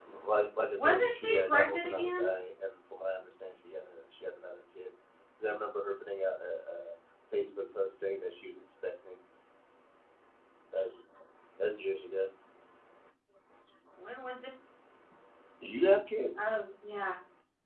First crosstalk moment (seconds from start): 0.8 s

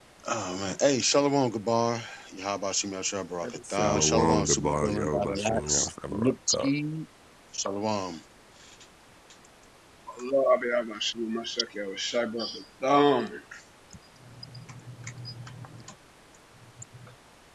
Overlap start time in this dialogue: 3.7 s

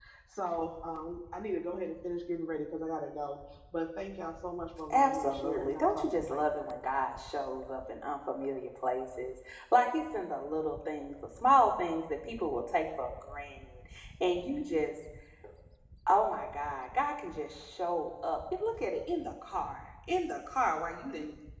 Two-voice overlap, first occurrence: 4.9 s

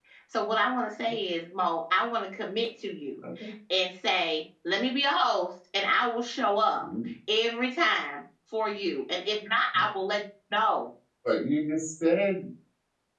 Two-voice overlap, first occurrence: none

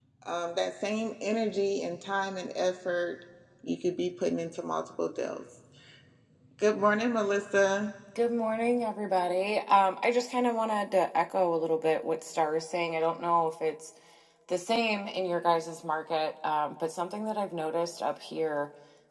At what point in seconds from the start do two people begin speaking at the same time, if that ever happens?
none

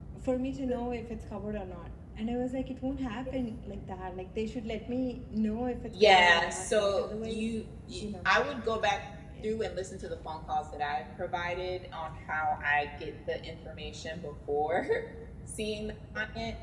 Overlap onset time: 5.9 s

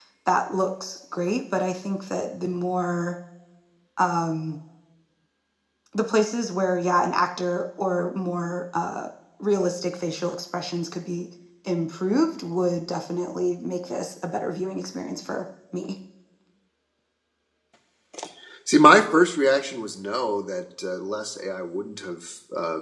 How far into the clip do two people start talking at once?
none

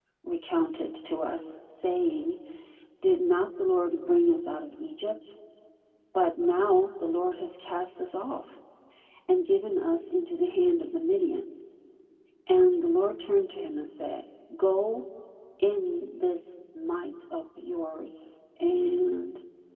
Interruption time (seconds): none

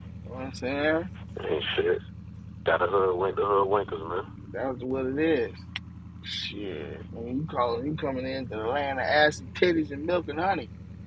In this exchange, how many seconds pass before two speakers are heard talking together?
none

